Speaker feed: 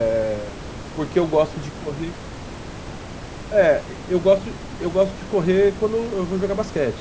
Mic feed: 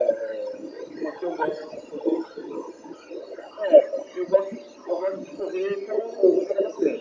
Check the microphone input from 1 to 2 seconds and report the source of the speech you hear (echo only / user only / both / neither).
echo only